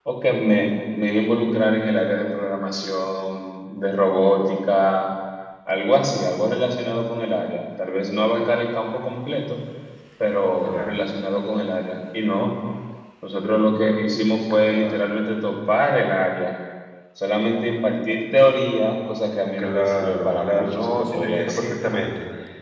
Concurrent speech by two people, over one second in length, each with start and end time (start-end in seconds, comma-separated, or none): 19.6-21.8